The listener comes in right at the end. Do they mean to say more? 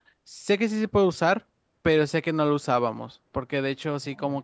No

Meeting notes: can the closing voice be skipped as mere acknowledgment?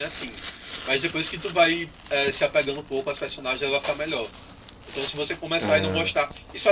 Yes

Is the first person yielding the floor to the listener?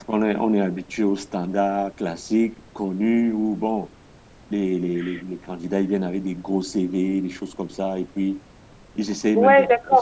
Yes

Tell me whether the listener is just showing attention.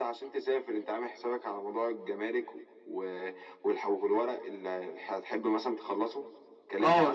No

